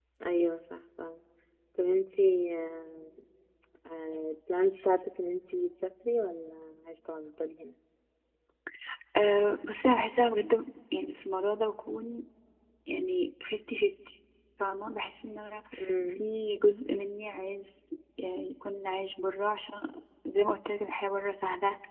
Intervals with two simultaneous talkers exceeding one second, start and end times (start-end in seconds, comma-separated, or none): none